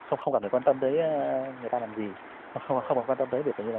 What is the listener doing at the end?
listening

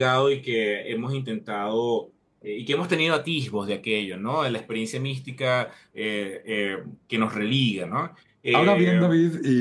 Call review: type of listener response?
taking over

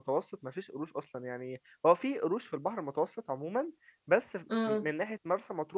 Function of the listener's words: listening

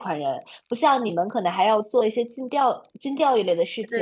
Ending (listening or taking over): listening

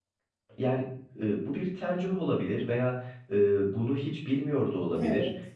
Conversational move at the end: listening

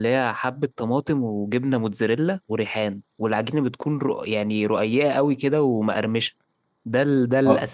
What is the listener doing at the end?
listening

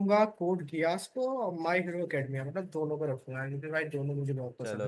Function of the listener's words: taking over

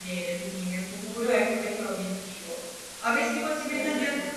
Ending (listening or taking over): listening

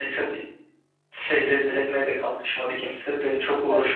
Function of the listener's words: taking over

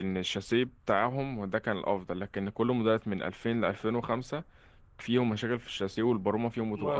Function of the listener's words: taking over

